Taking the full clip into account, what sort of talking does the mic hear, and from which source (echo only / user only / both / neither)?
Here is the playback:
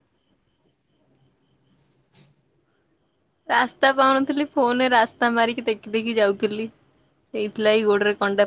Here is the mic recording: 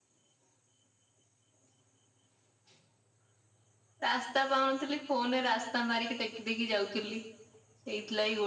echo only